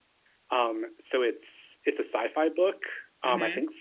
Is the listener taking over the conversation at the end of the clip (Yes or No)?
No